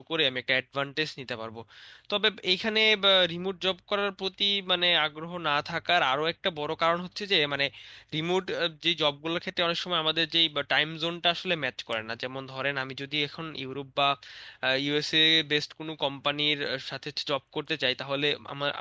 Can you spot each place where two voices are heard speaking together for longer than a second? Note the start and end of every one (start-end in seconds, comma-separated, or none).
none